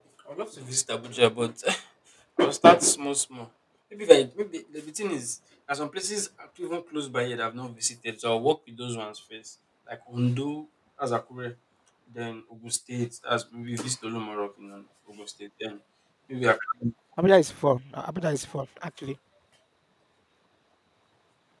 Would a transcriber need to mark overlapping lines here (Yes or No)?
No